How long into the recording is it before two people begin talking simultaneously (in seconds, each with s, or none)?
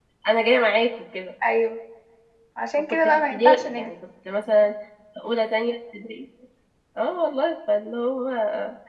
2.8 s